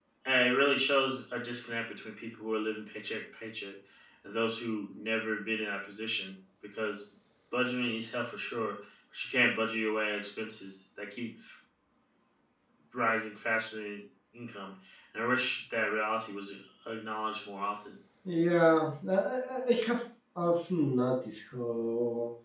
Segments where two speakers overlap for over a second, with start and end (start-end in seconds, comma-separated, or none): none